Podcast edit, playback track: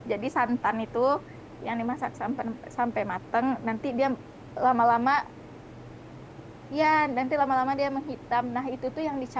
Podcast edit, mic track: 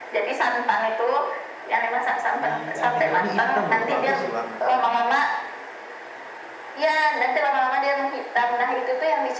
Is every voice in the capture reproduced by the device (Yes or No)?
No